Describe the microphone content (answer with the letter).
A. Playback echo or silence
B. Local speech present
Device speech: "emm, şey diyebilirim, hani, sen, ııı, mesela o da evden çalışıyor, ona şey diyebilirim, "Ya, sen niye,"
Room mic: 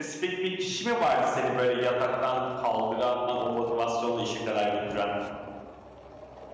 B